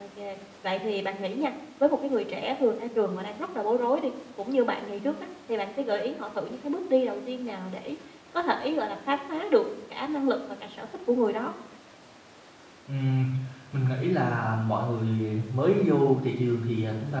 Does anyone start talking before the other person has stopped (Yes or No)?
No